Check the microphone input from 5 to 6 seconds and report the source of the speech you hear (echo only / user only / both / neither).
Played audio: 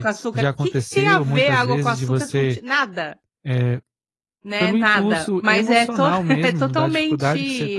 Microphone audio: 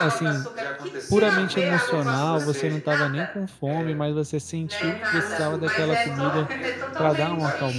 both